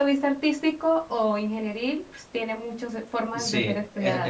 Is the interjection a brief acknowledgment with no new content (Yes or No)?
No